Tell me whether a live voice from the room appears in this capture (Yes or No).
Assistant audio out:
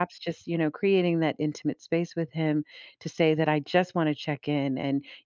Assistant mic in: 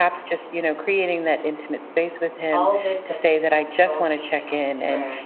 Yes